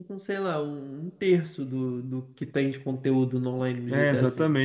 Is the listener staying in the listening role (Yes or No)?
No